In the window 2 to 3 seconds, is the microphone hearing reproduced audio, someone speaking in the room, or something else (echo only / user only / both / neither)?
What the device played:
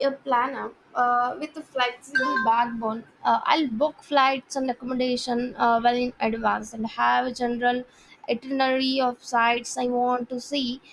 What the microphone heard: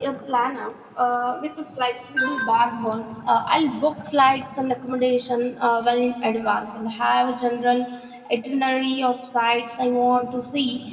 echo only